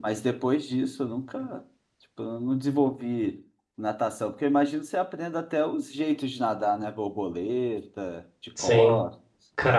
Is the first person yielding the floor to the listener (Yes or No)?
Yes